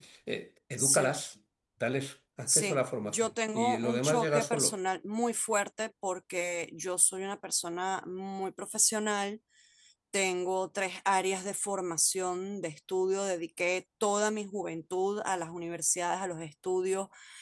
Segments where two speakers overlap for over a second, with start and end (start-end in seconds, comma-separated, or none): 2.5-4.7